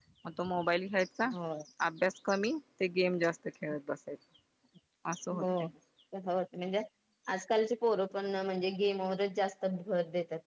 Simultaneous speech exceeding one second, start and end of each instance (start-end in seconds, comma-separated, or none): none